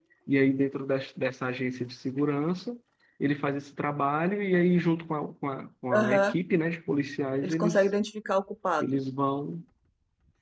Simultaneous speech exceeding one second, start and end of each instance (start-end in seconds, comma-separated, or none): none